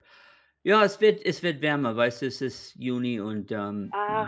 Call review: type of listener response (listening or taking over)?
taking over